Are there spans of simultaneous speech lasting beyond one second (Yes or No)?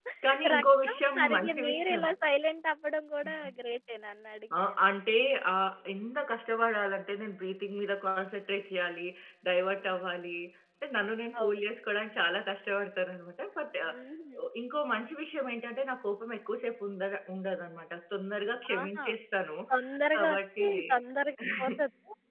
Yes